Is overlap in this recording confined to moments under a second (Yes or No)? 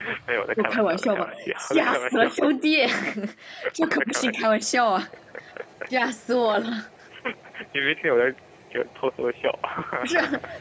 No